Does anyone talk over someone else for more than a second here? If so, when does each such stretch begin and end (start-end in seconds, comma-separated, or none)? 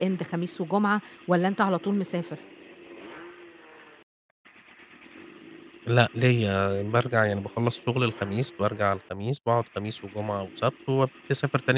none